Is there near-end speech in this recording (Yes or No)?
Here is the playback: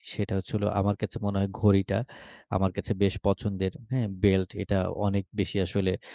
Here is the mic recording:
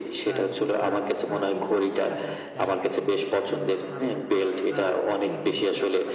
Yes